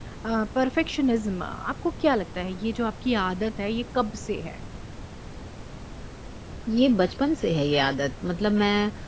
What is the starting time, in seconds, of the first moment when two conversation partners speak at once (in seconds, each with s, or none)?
none